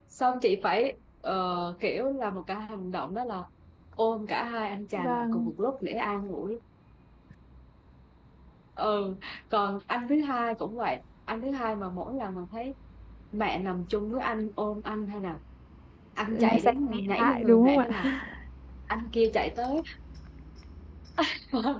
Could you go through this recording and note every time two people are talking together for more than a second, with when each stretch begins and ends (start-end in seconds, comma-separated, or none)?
16.3-18.1